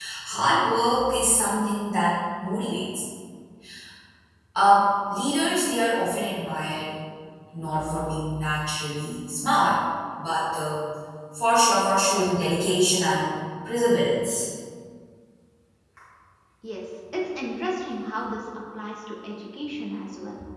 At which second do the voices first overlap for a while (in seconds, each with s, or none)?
none